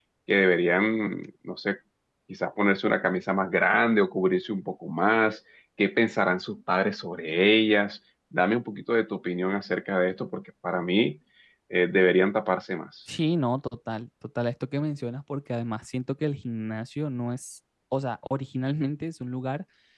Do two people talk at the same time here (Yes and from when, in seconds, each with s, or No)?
No